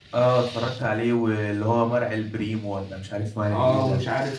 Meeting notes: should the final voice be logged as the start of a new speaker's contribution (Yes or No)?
Yes